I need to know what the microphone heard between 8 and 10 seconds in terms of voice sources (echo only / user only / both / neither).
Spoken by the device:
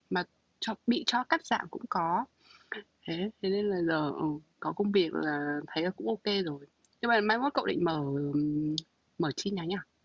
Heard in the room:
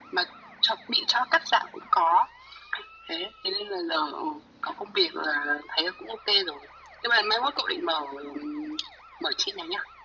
echo only